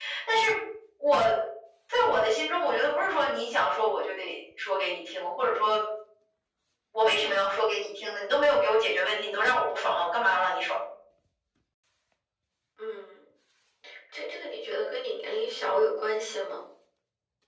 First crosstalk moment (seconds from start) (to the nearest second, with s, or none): none